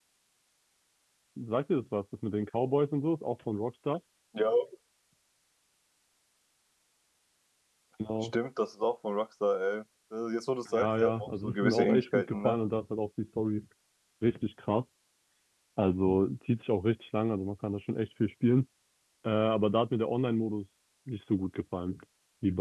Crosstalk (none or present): present